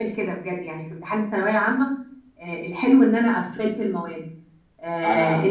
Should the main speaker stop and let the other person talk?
No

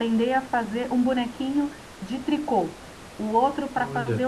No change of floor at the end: Yes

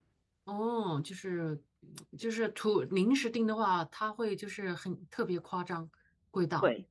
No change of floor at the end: No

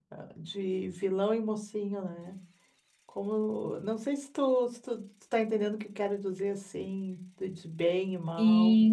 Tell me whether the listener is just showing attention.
No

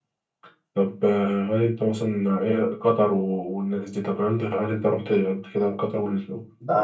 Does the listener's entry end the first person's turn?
Yes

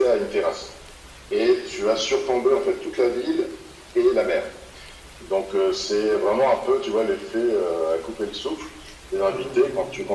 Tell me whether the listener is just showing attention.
Yes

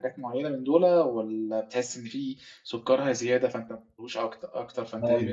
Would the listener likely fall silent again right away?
No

